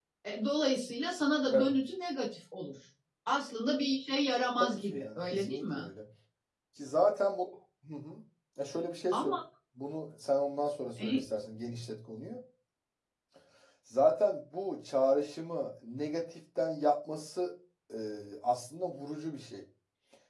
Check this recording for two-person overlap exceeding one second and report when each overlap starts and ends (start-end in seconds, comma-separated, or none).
4.6-5.9